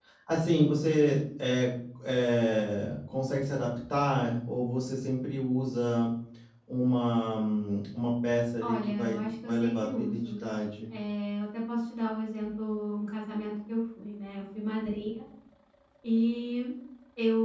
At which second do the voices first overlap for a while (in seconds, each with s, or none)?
8.6 s